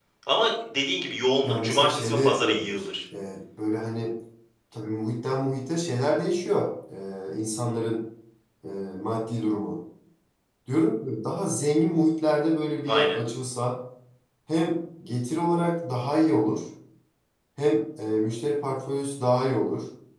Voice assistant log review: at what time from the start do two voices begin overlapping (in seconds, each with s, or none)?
1.4 s